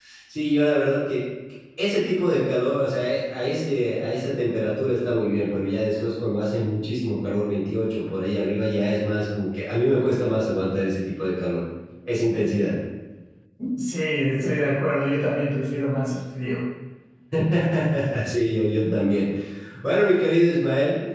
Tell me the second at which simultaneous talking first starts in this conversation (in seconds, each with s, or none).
none